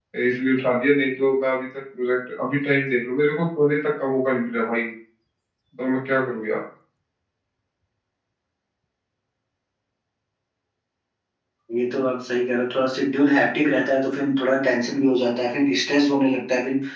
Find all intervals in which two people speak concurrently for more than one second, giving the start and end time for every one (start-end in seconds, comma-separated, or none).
none